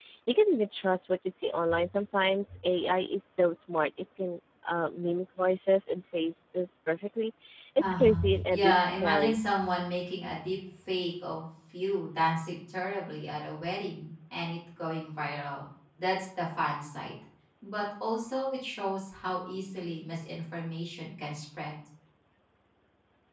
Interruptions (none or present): present